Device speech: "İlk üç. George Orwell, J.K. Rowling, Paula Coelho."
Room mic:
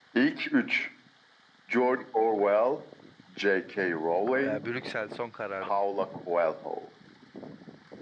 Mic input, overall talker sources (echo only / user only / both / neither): both